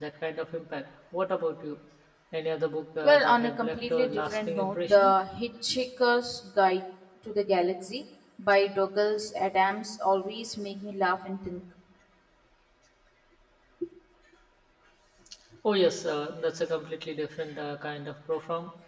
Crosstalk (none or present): present